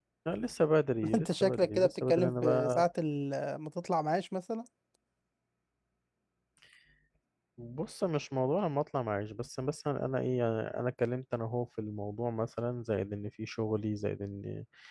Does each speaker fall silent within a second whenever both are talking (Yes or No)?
No